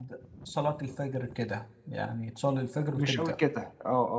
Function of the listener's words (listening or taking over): taking over